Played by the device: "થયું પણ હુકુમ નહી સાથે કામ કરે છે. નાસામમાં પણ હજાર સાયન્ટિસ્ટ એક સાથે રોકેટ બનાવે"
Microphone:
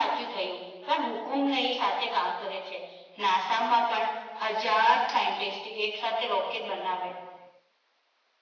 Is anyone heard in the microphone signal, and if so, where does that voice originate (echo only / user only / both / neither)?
echo only